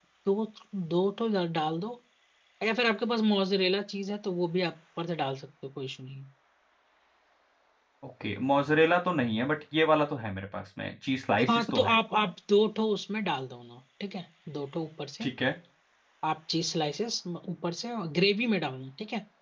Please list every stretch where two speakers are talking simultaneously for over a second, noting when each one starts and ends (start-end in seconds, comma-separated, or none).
none